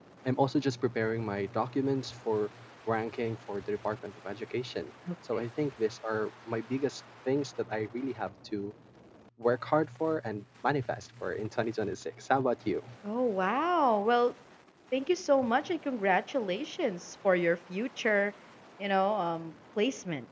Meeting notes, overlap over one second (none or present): none